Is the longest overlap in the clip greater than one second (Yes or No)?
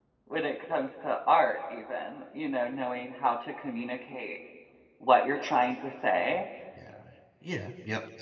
No